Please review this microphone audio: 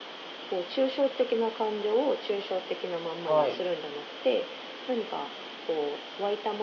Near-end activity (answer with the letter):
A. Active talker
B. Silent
A